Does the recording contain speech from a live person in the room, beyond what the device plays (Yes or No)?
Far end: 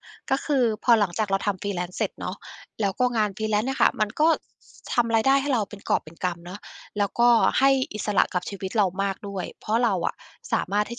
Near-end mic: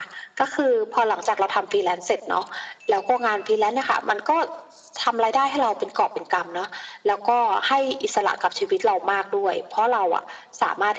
No